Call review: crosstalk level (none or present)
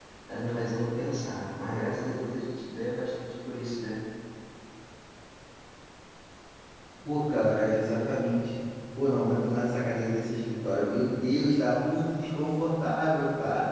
none